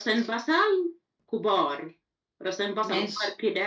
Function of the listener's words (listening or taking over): listening